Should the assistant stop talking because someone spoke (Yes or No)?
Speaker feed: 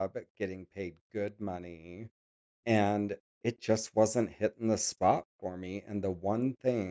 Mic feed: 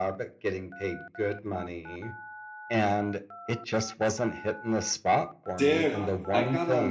Yes